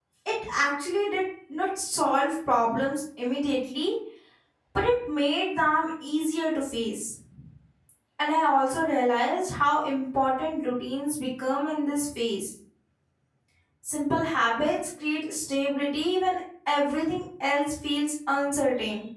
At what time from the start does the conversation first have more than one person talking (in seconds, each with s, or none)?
none